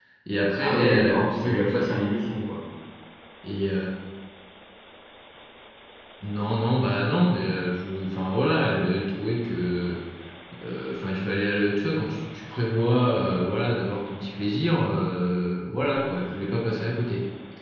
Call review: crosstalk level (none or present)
present